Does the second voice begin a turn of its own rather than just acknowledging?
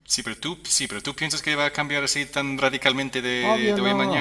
Yes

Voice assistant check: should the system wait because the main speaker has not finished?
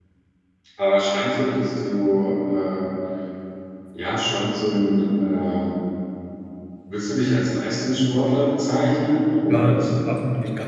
No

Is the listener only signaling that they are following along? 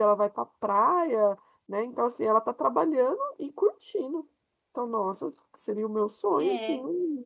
No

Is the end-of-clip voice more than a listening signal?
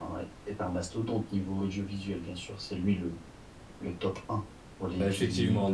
Yes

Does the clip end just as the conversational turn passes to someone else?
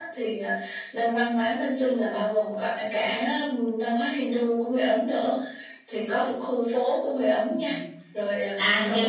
Yes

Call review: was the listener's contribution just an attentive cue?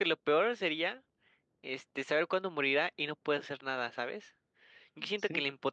Yes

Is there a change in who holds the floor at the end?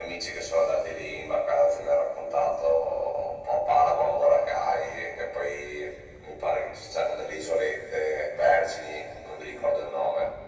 No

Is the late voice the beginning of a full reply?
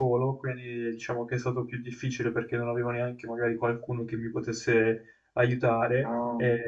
No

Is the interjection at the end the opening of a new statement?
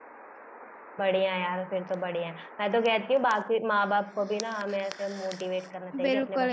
Yes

